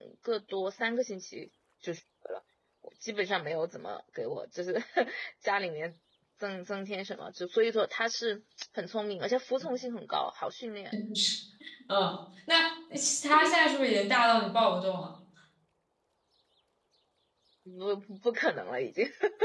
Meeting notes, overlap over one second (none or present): none